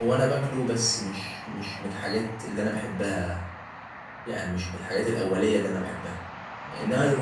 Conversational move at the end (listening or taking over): listening